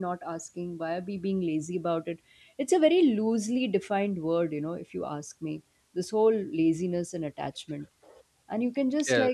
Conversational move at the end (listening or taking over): listening